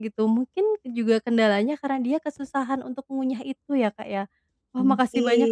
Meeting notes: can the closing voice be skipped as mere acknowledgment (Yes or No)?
Yes